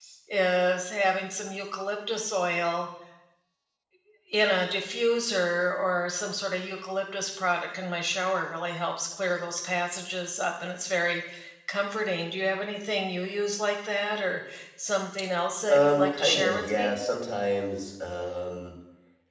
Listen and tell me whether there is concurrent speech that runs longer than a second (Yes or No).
Yes